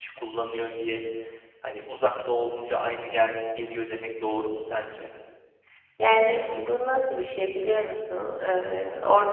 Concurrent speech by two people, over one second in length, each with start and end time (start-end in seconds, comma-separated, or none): none